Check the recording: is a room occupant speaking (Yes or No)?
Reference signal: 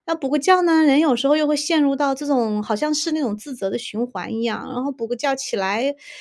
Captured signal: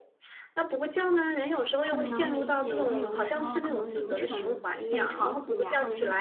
Yes